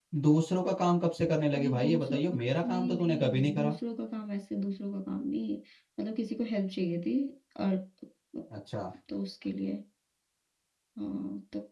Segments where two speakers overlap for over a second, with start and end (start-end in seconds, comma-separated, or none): 1.5-3.8